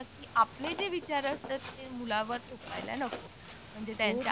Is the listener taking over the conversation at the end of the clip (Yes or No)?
No